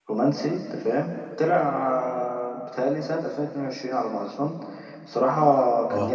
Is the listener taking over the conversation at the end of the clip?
No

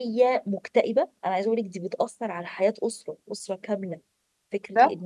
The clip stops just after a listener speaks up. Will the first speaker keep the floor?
Yes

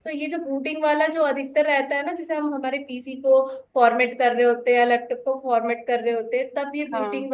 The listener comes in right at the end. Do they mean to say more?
No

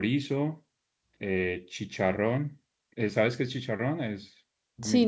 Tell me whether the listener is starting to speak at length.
Yes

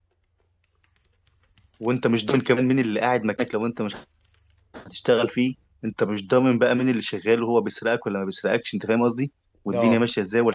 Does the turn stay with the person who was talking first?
Yes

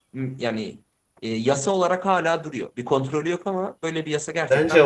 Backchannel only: No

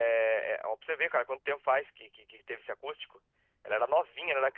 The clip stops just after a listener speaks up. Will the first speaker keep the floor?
Yes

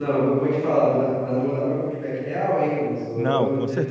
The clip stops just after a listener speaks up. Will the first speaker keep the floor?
No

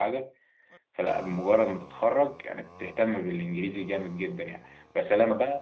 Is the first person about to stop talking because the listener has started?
No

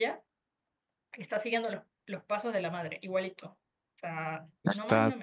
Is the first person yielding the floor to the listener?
Yes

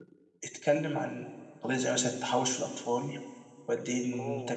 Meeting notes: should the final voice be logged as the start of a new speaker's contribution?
No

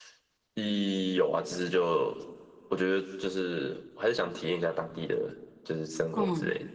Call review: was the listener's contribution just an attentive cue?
No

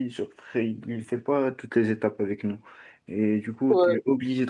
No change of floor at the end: Yes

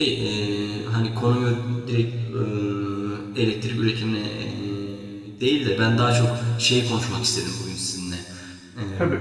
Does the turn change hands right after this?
No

